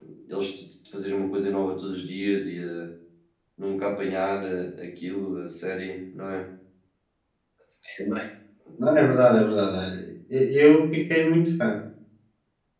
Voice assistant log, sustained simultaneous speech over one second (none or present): none